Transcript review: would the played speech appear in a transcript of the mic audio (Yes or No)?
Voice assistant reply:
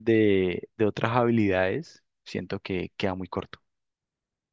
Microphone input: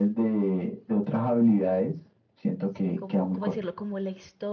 Yes